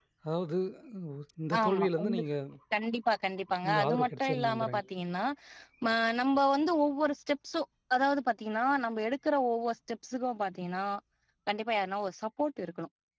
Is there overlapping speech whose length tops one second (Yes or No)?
Yes